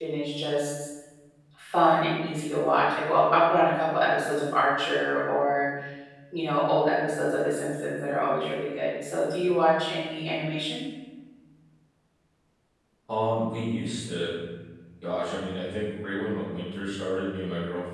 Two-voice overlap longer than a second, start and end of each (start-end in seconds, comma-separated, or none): none